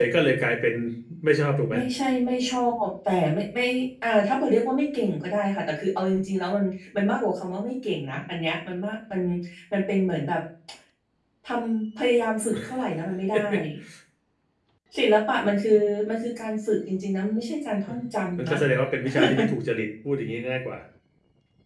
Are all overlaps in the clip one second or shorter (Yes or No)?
Yes